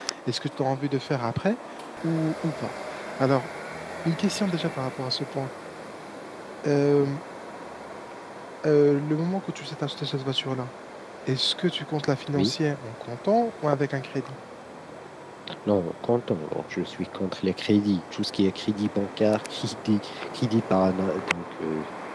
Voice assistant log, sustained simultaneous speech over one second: none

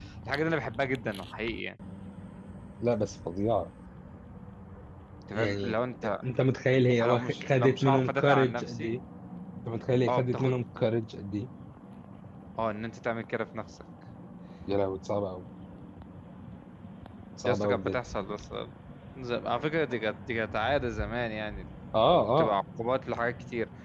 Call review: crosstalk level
present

